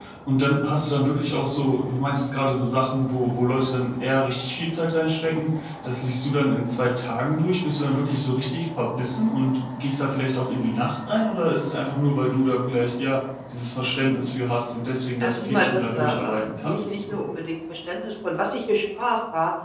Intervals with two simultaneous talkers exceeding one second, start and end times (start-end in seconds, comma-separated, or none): 15.2-17.2